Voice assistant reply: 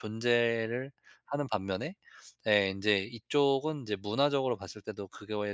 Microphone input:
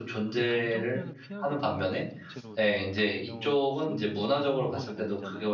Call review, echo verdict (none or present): present